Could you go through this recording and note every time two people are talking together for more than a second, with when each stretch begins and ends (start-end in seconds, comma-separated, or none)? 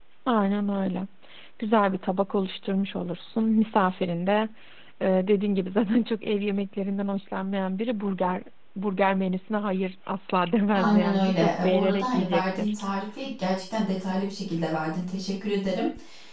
10.8-12.7